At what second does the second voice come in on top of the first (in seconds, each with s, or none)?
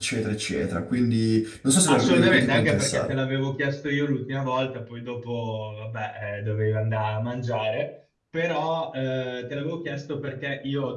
1.9 s